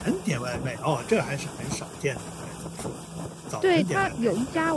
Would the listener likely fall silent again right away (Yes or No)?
No